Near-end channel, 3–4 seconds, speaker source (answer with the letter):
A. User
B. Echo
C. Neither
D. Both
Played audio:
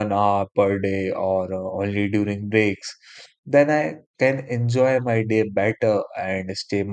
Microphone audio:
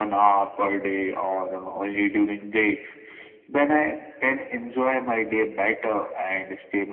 B